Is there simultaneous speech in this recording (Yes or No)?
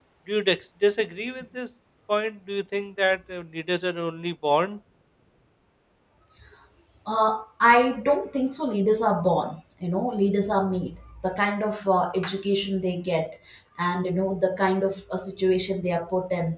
No